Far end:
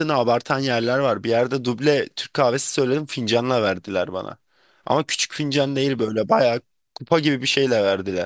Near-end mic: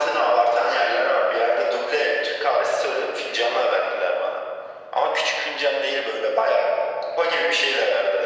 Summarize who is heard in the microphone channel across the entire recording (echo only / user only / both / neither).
echo only